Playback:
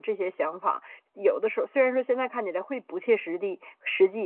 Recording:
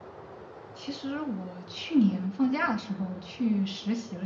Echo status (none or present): none